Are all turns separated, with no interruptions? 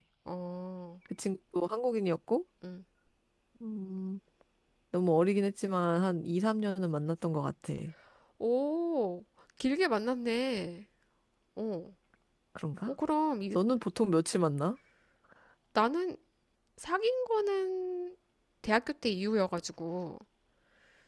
Yes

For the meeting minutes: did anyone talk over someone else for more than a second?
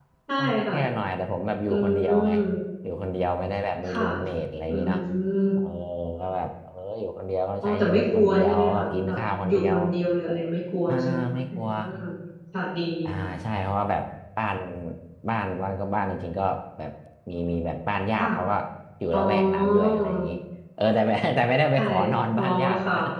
Yes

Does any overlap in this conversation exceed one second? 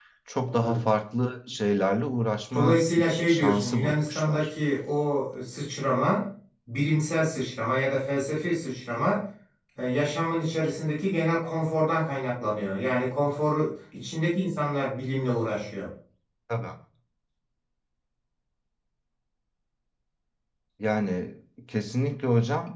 Yes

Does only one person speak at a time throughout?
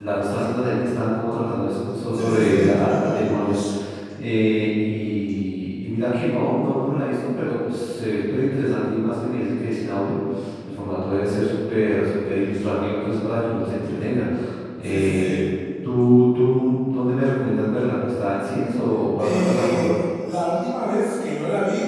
No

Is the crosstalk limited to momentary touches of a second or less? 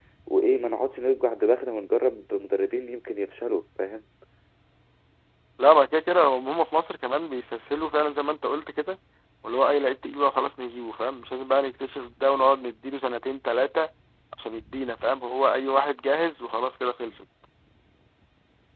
Yes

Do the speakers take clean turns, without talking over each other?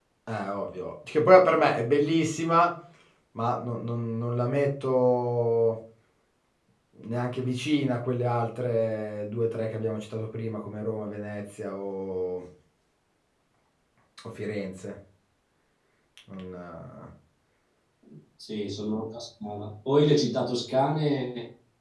Yes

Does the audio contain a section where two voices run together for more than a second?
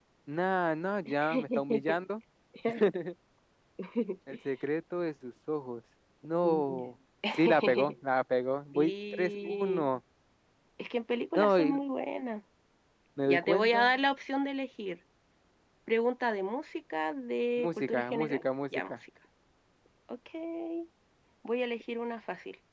Yes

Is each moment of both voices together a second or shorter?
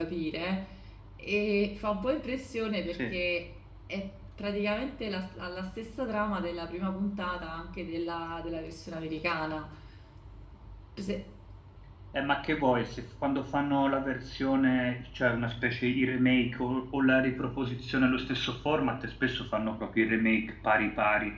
Yes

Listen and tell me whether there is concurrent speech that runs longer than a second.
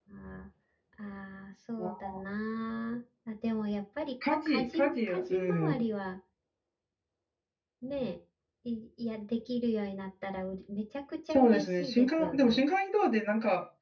Yes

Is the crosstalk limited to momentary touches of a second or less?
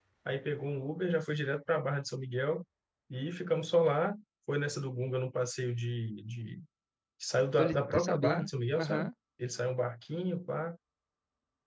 No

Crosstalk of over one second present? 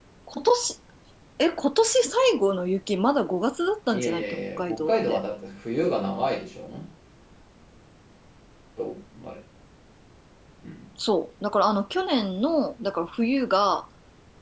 Yes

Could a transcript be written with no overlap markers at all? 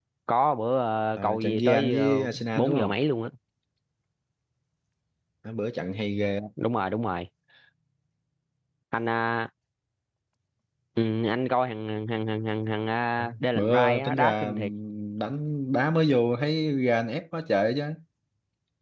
No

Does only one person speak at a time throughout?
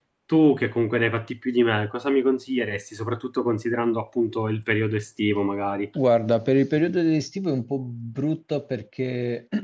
Yes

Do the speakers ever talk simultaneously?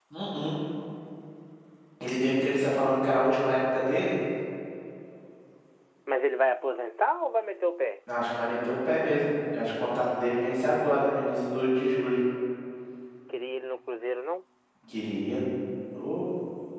No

